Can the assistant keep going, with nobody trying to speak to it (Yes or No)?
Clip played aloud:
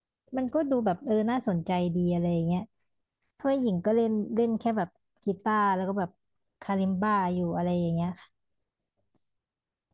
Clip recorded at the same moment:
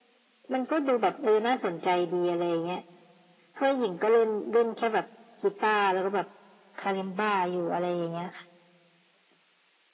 Yes